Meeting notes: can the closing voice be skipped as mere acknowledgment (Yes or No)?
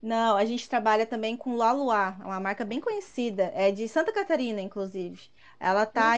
Yes